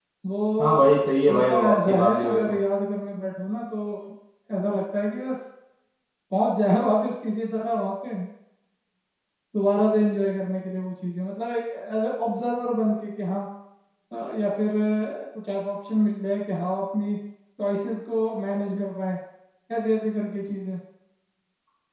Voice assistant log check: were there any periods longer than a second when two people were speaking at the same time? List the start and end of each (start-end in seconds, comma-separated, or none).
0.6-2.6